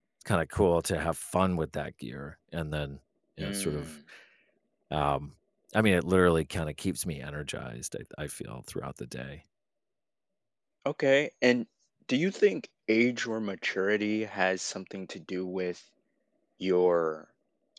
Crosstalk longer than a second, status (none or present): none